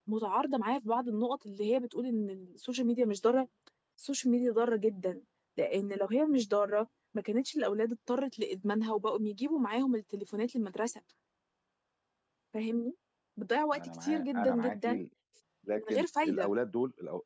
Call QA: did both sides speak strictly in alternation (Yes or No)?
No